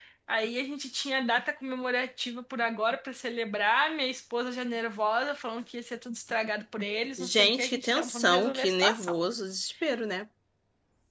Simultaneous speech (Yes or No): Yes